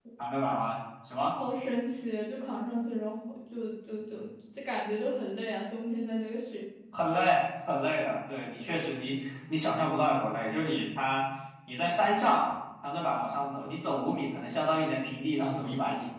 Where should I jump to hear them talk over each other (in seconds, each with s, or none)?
none